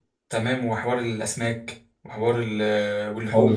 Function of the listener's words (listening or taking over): taking over